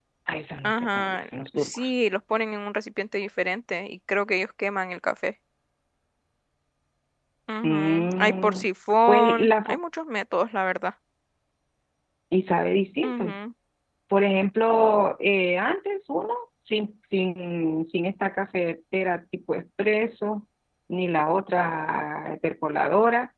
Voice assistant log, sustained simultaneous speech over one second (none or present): present